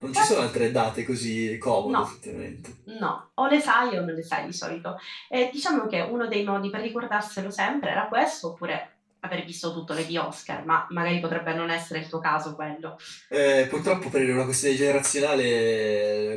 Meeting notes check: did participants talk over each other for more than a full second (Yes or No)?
No